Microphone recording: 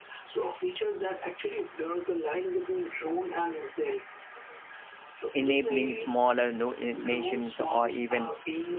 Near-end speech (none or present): present